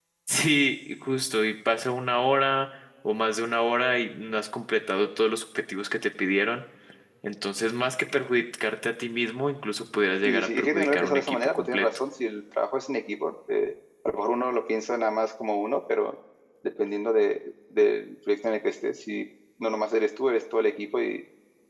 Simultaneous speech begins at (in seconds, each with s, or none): 10.2 s